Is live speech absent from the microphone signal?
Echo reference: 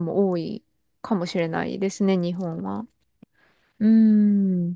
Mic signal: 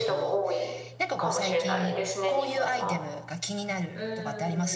No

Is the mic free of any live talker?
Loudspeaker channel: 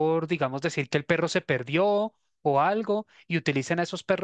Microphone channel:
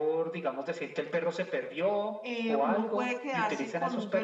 No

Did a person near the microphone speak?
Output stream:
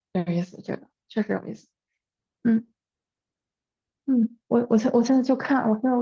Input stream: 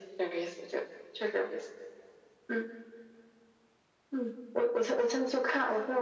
No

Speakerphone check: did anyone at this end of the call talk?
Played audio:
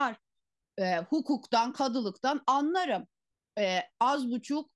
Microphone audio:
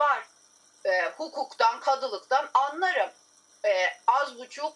No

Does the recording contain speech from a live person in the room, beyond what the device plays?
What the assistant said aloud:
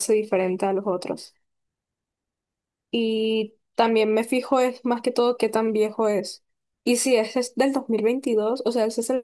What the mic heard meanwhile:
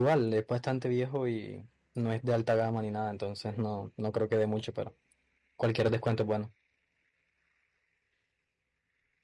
Yes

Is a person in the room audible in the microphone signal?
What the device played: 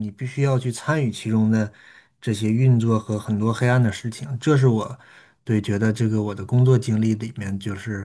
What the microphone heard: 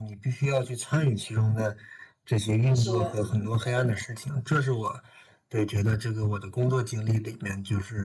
Yes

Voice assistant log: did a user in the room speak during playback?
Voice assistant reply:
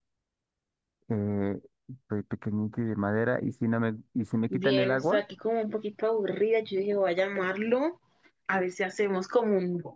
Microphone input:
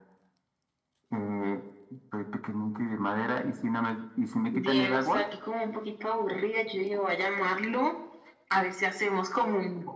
No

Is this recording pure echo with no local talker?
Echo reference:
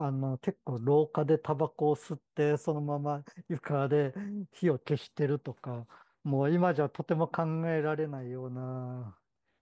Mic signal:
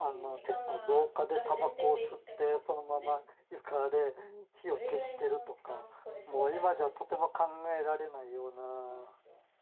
No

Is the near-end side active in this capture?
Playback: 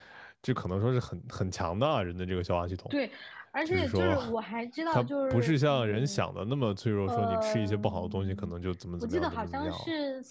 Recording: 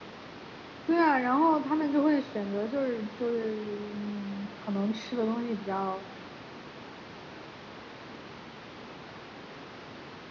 Yes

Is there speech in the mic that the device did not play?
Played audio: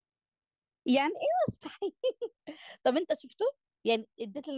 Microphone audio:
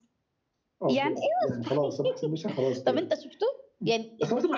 Yes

